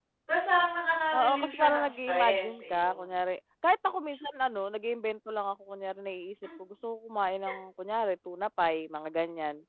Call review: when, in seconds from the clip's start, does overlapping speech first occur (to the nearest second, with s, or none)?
1 s